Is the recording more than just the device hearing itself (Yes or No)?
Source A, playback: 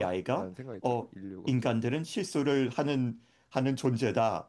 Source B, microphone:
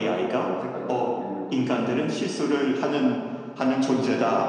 No